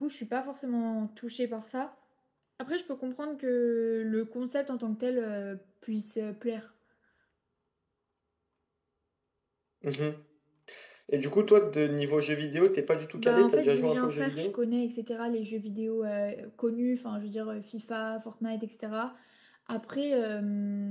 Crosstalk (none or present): present